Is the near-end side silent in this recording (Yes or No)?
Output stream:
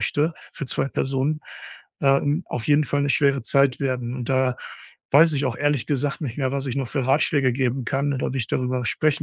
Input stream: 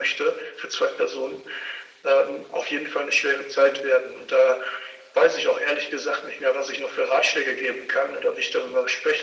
Yes